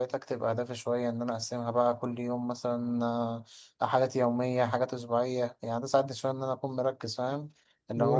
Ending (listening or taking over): listening